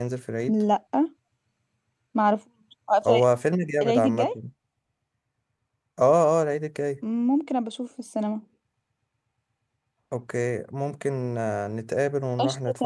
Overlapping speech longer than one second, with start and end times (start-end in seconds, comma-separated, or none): none